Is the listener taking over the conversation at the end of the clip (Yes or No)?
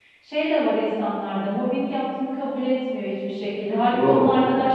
No